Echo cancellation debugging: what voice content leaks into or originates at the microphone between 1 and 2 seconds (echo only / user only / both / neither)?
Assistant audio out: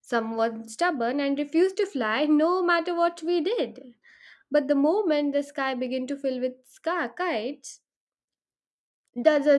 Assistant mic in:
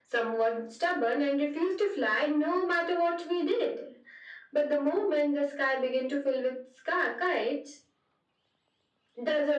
echo only